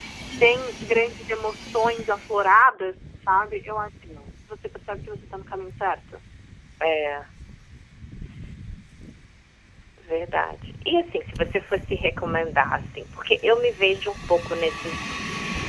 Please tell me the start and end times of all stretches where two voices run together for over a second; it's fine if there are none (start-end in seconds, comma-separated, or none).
none